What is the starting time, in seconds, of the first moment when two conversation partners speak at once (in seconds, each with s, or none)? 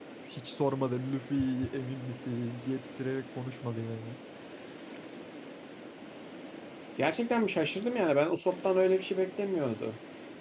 none